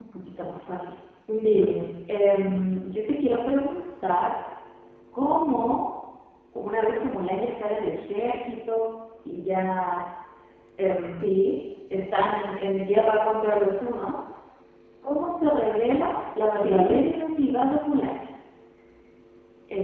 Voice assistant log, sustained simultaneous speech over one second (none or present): none